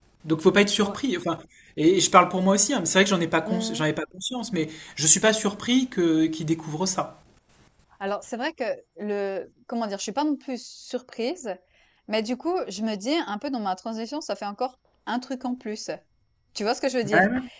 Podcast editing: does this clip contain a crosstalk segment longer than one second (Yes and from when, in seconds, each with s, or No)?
No